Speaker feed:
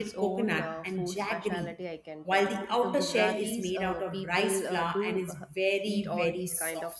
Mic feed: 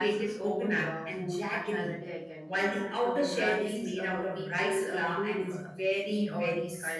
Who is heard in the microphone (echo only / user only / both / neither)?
echo only